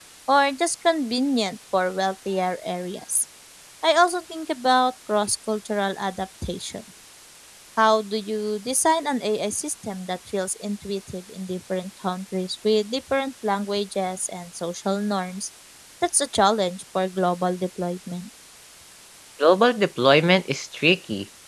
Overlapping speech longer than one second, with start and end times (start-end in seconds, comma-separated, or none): none